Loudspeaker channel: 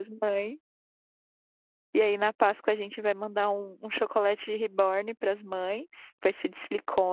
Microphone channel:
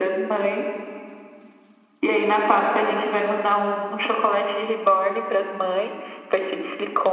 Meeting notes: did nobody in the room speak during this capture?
Yes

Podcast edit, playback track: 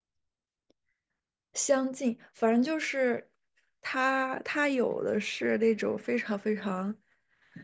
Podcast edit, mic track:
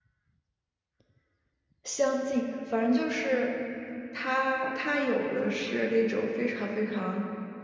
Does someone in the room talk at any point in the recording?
No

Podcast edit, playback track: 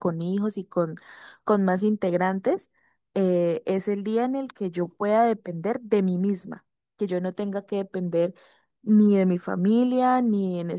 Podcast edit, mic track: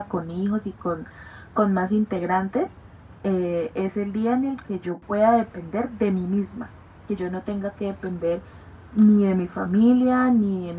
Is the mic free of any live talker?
Yes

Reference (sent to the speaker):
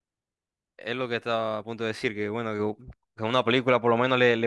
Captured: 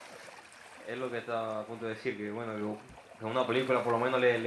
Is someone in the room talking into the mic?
No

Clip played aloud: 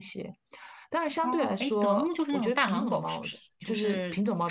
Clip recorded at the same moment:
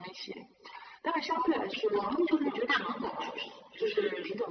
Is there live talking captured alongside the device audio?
No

